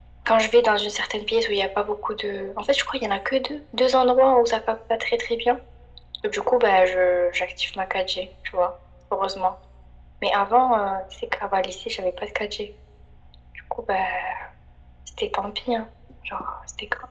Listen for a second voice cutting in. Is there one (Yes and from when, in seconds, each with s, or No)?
No